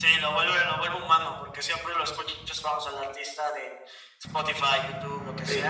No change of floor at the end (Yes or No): No